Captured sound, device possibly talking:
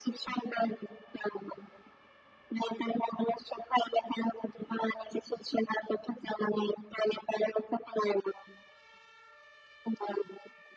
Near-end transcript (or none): none